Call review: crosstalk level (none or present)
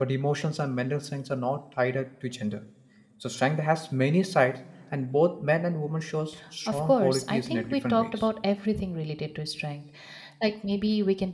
present